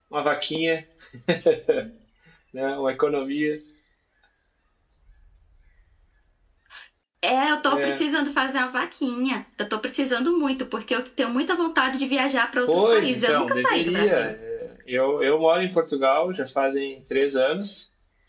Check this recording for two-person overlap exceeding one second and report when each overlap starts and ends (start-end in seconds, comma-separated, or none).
12.7-14.3